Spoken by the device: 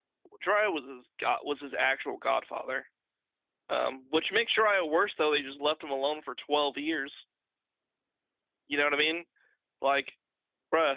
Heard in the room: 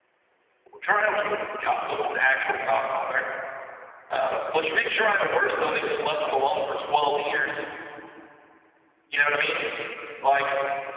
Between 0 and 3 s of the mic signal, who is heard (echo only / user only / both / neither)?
echo only